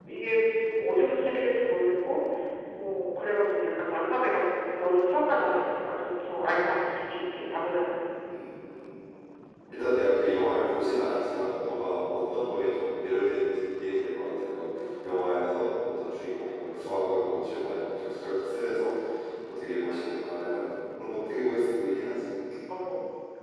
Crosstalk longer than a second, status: none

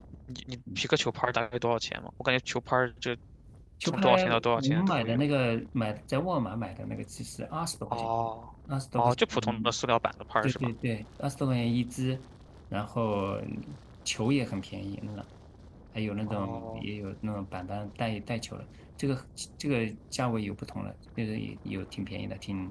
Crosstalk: present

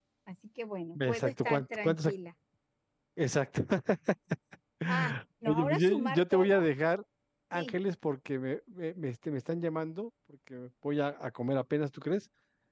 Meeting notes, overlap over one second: present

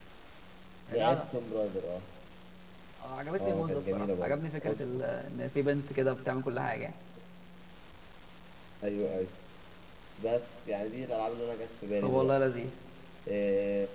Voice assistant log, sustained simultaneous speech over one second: present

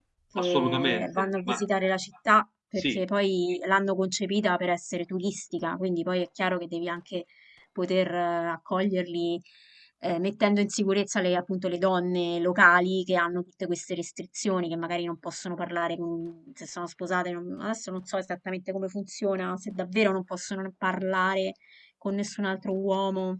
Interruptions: present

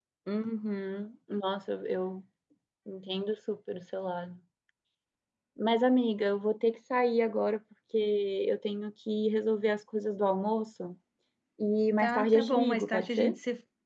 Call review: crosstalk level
present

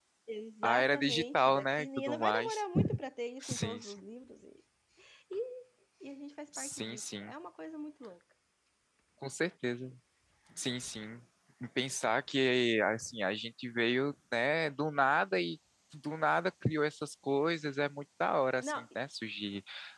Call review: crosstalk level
present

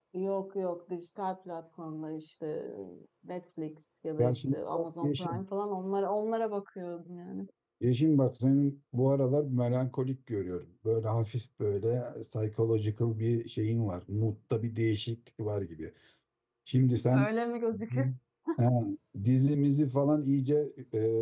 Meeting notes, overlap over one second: present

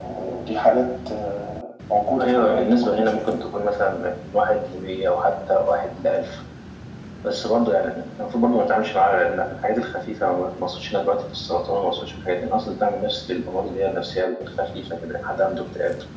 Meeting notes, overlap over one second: present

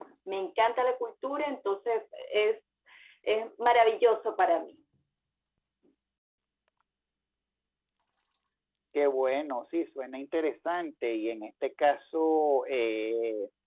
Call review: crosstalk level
none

